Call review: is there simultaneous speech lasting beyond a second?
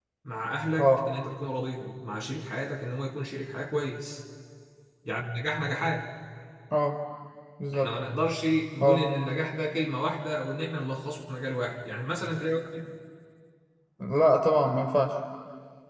No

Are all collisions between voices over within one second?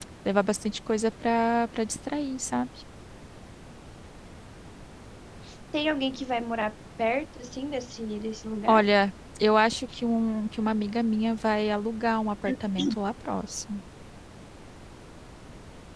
Yes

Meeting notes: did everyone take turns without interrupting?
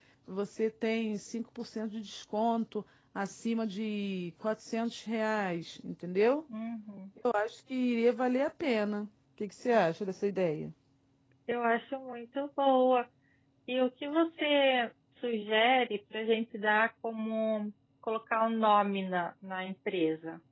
Yes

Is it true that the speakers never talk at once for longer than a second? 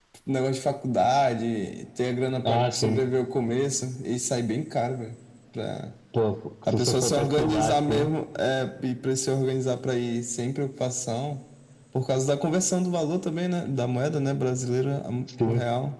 No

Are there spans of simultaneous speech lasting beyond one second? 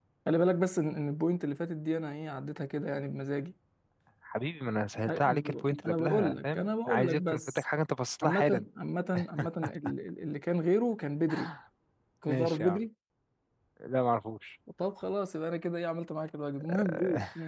Yes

